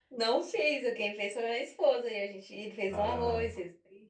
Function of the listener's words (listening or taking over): listening